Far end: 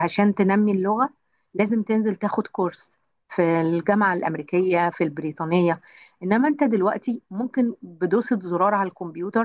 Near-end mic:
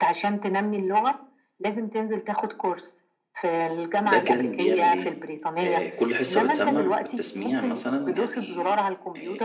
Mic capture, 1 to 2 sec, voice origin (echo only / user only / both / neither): echo only